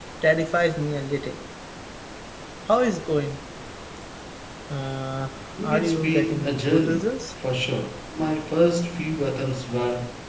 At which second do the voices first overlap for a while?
5.6 s

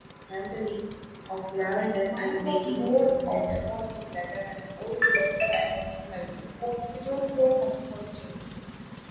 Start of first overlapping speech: 2.1 s

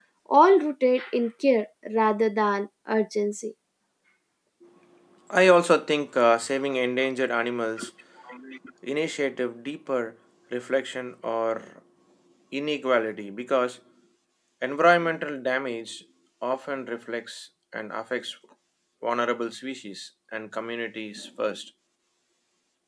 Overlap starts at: none

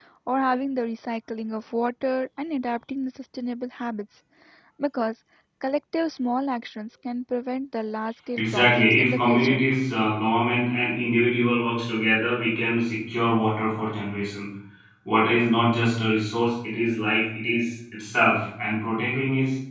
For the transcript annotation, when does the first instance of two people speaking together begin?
8.4 s

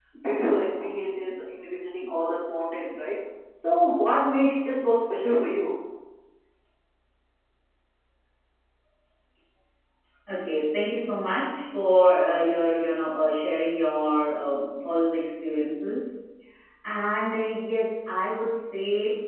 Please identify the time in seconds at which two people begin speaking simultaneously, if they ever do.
none

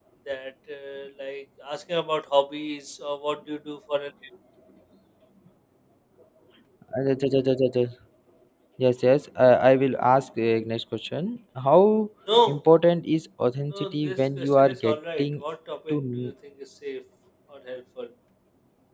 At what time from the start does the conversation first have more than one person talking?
13.7 s

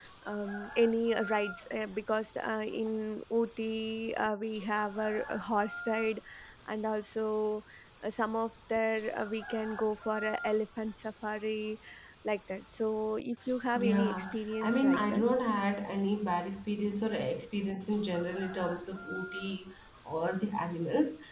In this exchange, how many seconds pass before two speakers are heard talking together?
13.8 s

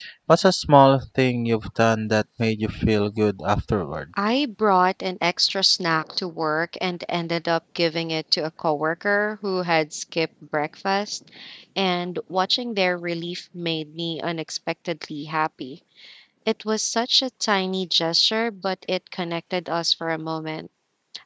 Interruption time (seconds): none

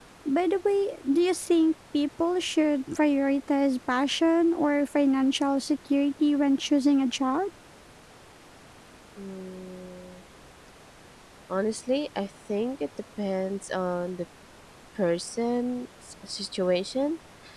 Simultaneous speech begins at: none

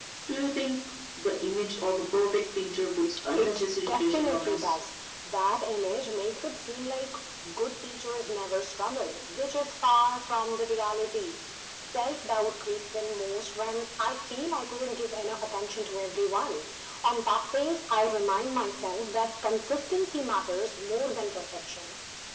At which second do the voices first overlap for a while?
3.4 s

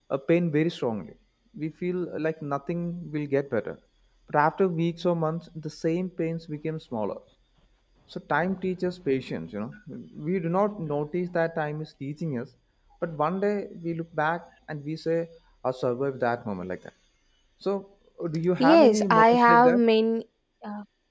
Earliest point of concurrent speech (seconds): 18.6 s

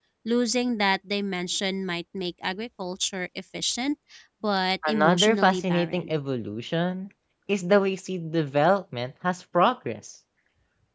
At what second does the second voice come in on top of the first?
4.9 s

